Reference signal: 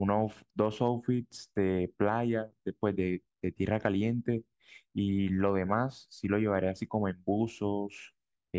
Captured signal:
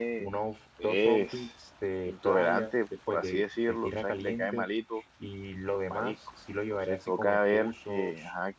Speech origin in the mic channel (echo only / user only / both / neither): both